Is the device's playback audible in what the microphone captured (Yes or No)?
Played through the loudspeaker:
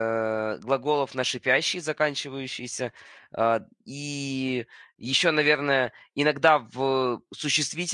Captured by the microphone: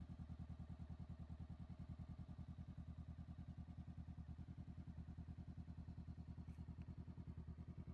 No